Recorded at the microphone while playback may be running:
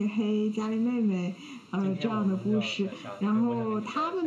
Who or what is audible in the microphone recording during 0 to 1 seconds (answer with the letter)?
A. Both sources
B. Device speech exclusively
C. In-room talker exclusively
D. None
B